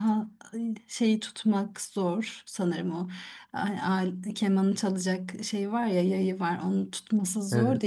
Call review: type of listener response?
listening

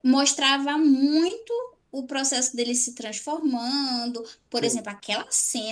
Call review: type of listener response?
listening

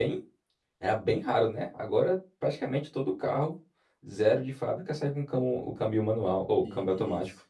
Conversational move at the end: taking over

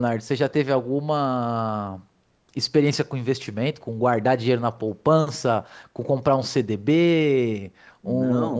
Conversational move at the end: taking over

